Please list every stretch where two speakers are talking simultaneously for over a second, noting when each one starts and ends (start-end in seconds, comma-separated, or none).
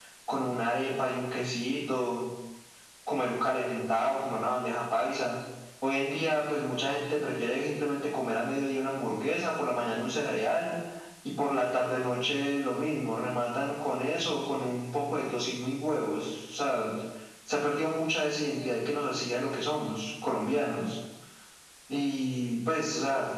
none